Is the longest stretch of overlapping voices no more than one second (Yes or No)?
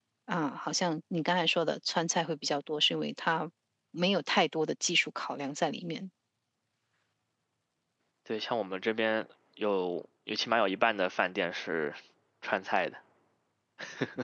Yes